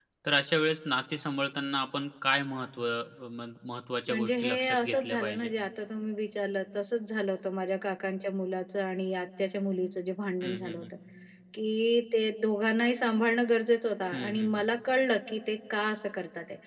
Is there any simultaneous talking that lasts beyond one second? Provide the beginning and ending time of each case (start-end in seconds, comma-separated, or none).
4.1-5.5